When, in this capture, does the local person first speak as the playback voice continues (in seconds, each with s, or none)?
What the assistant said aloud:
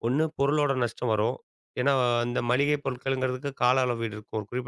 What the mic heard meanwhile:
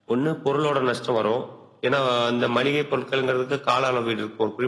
none